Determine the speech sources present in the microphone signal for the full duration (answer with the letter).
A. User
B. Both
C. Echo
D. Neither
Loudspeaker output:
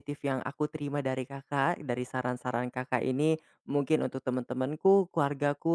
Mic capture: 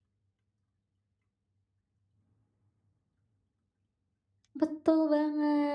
A